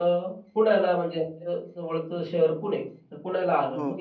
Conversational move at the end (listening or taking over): listening